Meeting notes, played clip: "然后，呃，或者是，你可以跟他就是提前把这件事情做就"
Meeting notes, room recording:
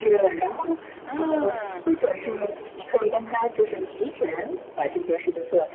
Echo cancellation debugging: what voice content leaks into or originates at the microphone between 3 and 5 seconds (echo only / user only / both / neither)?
echo only